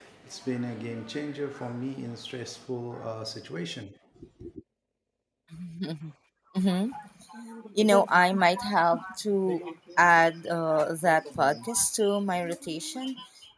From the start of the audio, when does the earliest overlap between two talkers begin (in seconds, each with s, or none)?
none